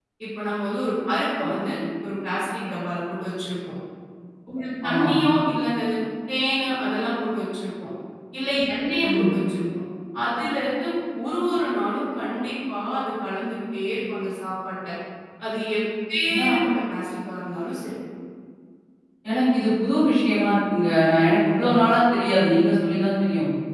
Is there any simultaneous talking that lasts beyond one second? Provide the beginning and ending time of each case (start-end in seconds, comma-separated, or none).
none